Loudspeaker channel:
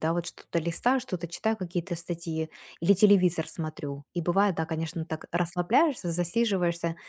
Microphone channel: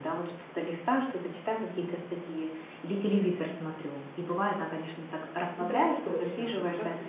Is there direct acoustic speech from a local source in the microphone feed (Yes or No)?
Yes